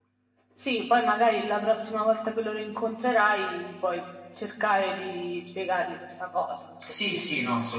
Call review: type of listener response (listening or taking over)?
taking over